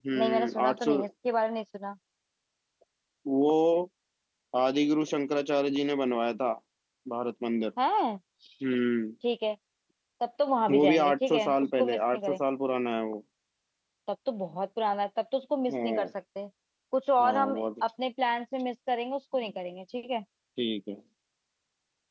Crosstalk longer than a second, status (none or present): present